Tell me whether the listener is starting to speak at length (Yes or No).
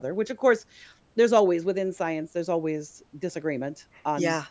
Yes